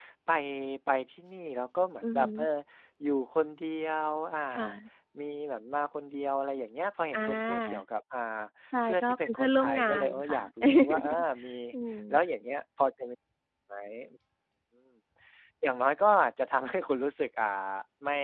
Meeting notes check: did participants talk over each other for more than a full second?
Yes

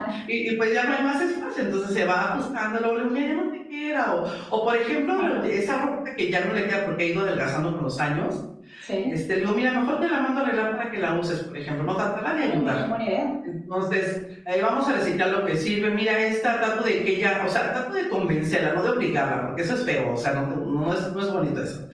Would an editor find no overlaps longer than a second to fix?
Yes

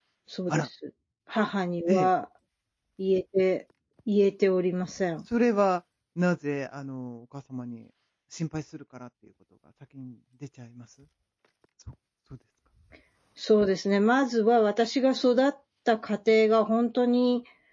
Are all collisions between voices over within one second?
Yes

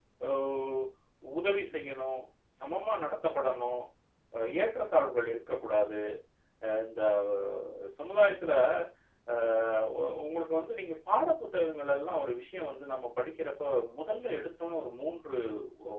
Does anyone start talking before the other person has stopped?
No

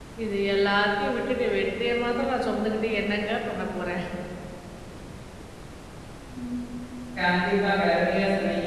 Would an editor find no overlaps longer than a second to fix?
Yes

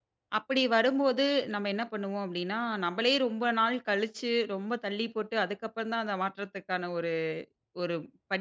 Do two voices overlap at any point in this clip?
No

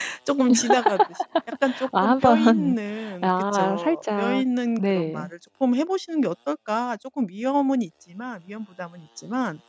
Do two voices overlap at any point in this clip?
Yes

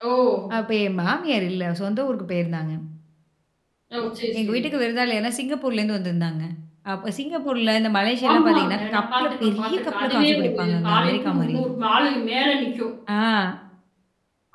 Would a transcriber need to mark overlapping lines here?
Yes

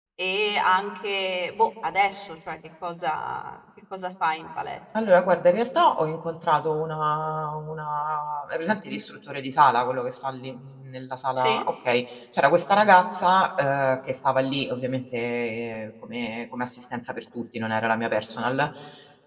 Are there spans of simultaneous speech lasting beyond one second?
No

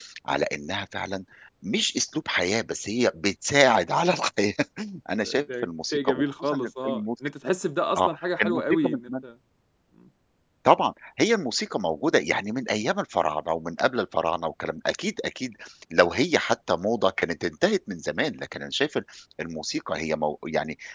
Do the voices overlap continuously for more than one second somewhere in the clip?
Yes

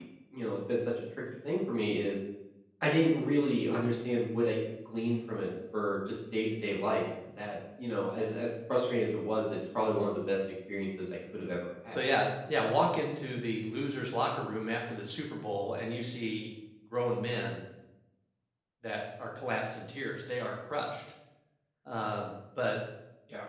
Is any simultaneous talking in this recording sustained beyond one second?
No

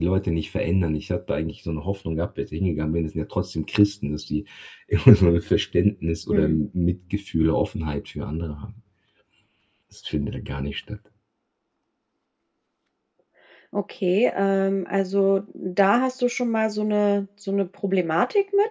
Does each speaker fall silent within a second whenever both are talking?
Yes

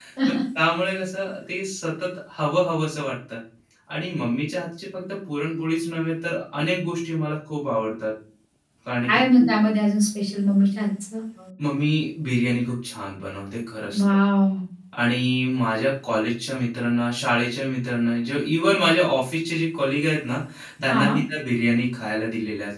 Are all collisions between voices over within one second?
Yes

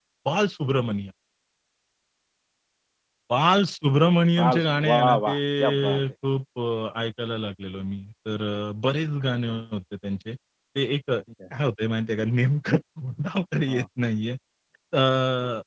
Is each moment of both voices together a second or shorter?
No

